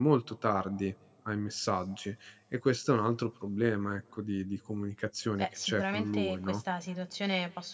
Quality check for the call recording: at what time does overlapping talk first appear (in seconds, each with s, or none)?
5.4 s